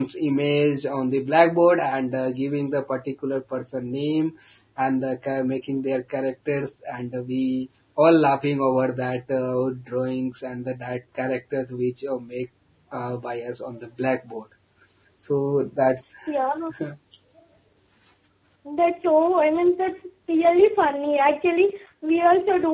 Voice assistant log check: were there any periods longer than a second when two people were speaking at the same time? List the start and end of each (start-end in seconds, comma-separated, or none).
none